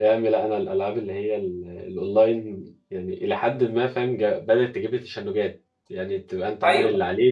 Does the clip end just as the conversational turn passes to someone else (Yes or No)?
No